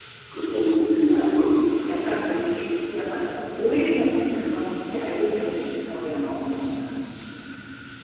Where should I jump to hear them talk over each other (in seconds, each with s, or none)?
none